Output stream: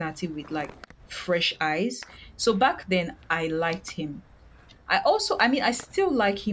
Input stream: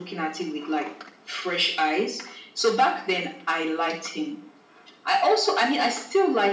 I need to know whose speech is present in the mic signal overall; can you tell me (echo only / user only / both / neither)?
echo only